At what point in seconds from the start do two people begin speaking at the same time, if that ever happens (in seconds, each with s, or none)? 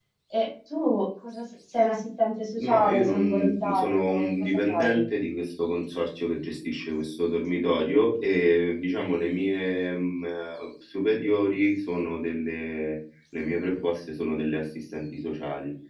2.6 s